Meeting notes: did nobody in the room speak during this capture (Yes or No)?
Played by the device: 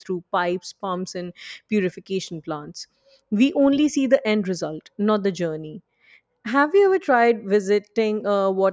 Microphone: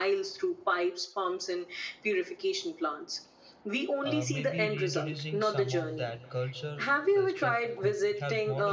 No